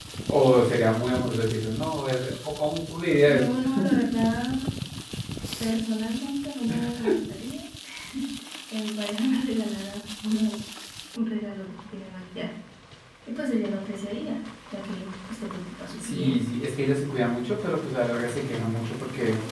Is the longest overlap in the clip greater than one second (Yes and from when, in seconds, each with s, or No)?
No